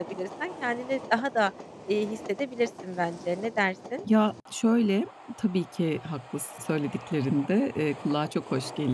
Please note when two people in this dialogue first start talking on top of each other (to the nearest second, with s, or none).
none